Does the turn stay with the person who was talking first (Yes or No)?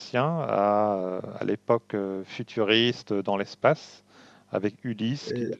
Yes